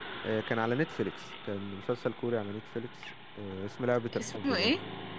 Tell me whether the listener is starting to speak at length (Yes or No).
No